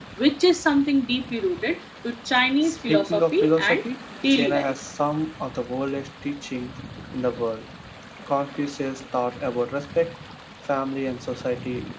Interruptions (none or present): present